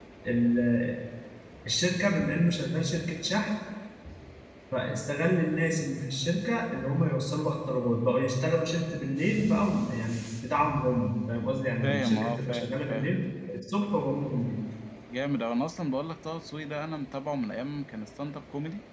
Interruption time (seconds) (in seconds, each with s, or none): 11.8 s